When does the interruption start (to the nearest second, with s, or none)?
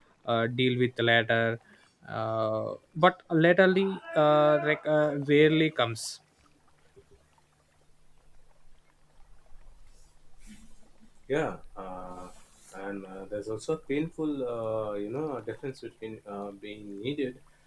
none